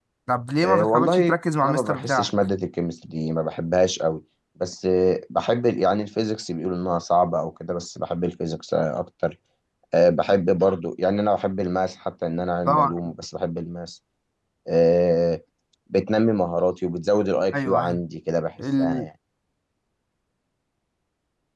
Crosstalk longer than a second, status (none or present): present